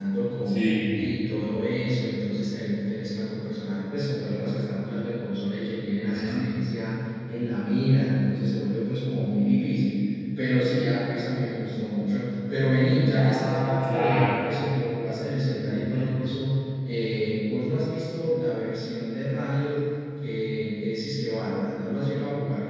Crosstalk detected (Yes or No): Yes